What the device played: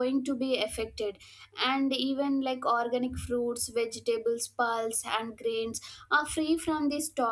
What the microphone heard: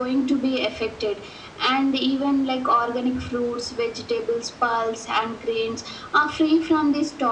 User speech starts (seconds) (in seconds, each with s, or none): none